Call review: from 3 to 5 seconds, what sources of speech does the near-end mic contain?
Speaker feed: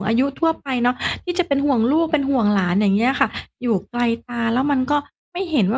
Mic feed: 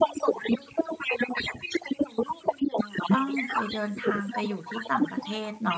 both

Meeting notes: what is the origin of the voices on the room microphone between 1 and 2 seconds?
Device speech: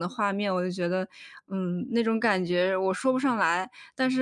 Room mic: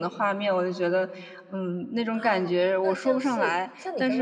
echo only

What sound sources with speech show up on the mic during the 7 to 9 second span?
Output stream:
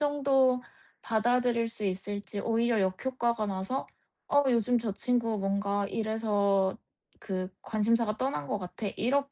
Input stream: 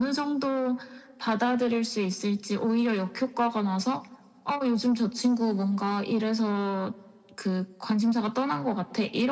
echo only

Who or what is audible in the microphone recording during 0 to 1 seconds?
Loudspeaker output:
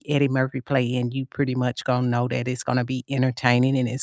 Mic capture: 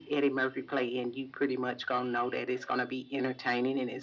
echo only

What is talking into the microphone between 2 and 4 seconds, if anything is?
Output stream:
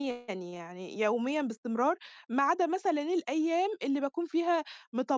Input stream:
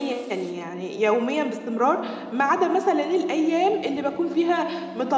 echo only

